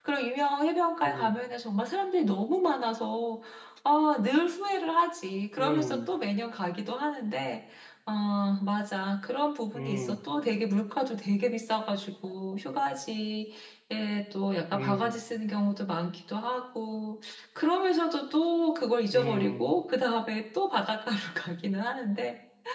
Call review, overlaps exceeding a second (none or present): none